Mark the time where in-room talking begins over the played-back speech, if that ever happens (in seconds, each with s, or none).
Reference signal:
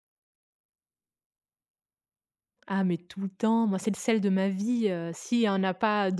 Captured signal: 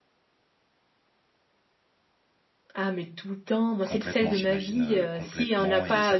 3.8 s